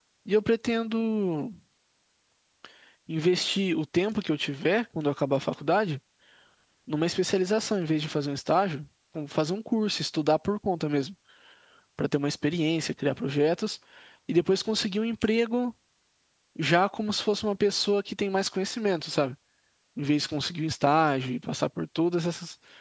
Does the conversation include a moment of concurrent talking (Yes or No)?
No